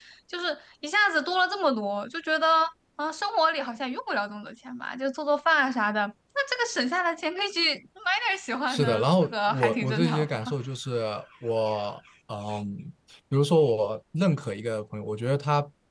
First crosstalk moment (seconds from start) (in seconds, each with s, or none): 8.7 s